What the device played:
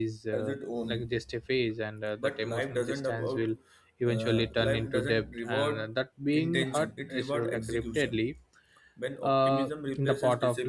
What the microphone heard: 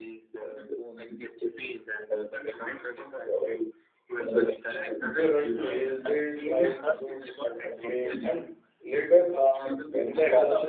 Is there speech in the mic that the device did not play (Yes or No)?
Yes